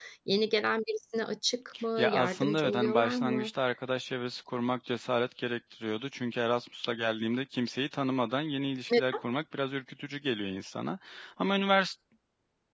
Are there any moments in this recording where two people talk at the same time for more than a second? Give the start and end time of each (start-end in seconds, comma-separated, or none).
2.0-3.5